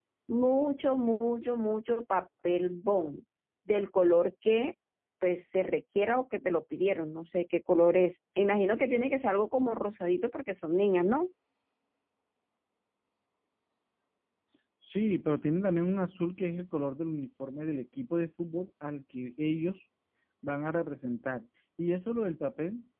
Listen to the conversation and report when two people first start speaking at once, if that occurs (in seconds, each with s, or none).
none